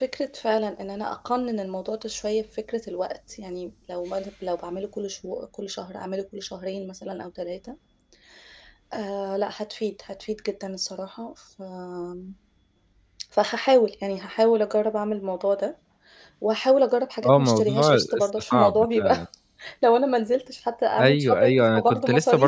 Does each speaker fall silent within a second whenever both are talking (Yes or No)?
No